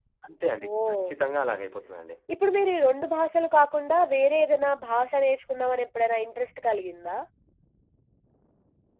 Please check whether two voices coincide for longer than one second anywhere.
No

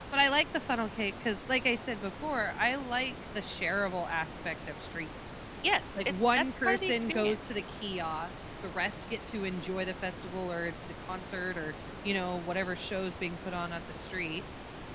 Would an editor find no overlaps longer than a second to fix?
No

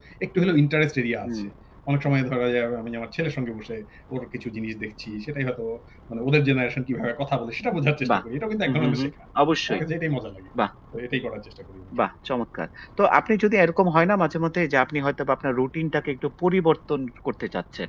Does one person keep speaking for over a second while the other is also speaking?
No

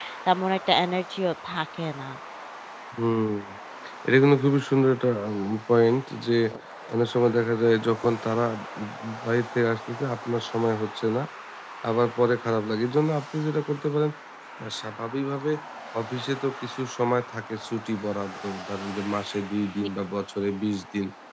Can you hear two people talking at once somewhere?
No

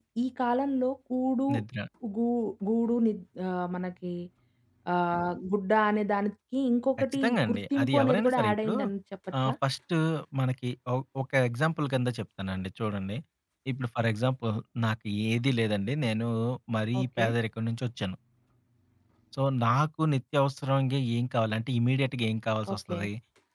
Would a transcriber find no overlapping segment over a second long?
No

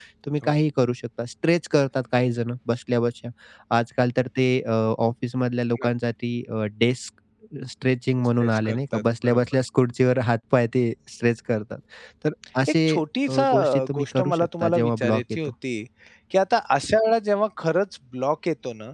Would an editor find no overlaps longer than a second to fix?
No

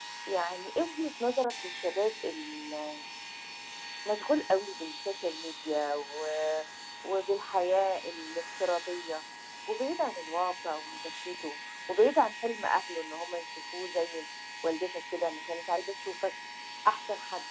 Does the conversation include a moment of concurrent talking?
No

